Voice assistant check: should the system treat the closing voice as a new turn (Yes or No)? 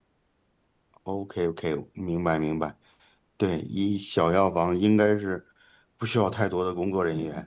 Yes